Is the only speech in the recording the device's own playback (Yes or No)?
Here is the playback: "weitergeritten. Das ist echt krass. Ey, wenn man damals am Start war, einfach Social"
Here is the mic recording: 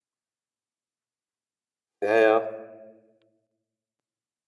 No